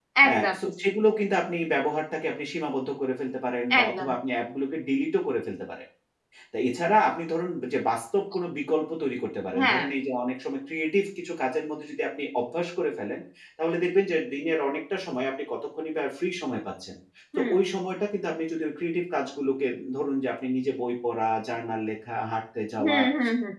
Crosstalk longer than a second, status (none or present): none